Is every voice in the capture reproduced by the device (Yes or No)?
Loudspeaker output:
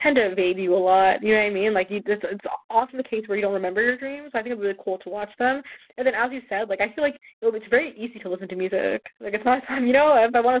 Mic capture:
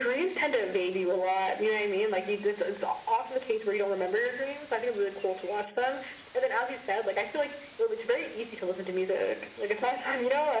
Yes